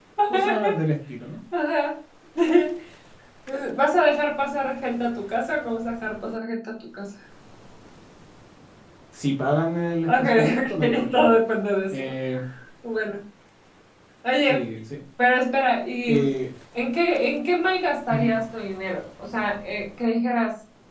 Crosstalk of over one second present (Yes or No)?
Yes